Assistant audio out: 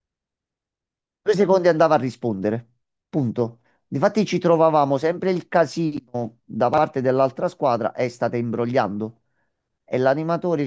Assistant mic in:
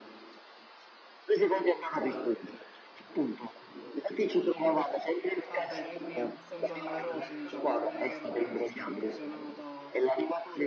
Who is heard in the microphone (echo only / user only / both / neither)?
both